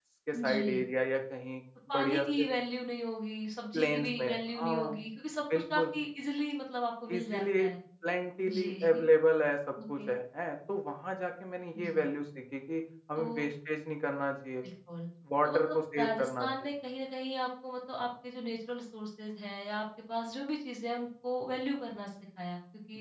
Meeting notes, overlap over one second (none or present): present